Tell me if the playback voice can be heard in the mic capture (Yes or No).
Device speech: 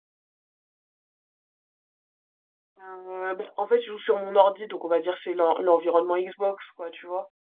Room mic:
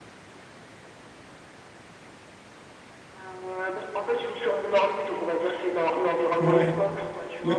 Yes